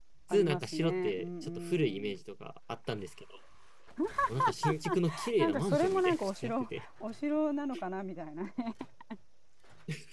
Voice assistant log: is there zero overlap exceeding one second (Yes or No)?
No